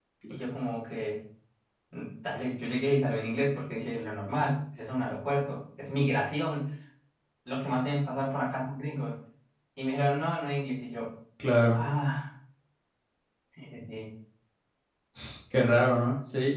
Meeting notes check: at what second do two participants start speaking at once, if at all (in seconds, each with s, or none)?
none